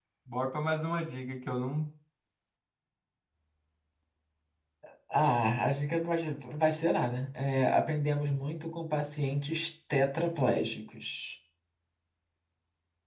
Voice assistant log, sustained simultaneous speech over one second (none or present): none